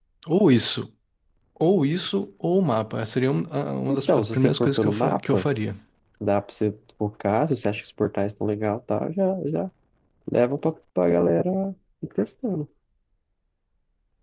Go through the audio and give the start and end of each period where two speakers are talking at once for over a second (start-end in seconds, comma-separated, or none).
3.9-5.5